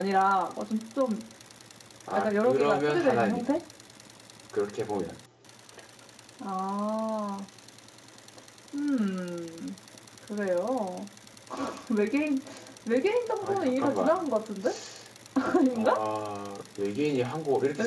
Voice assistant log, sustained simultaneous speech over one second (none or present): present